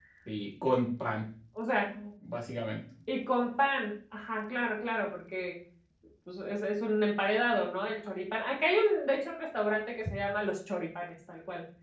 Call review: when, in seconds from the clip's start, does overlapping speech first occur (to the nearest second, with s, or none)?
none